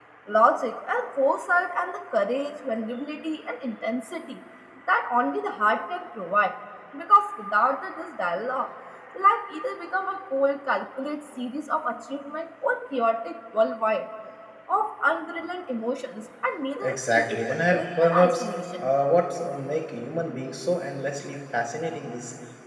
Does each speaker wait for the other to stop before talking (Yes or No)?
No